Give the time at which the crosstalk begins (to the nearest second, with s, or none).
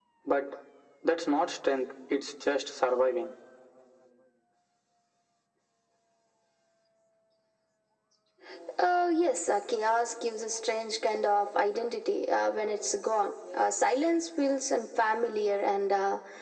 none